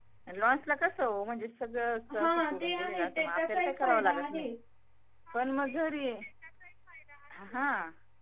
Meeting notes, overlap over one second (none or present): present